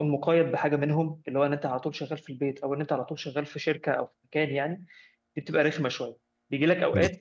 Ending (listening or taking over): listening